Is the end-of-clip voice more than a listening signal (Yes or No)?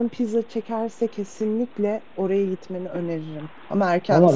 Yes